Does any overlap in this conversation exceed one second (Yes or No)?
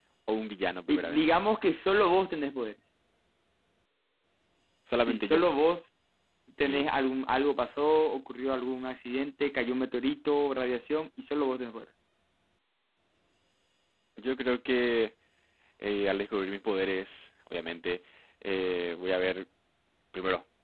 No